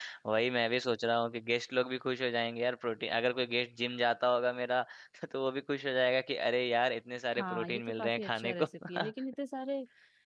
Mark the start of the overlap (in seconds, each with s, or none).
7.4 s